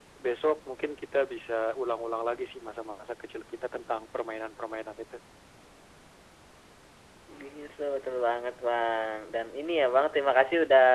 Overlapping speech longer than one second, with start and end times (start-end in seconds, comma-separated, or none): none